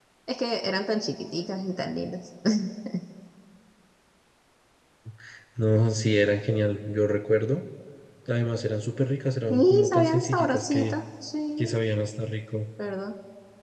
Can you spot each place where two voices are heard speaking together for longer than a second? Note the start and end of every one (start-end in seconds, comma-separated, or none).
9.5-10.9